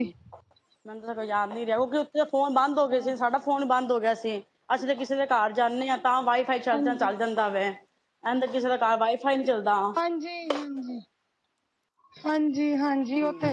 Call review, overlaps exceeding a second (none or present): none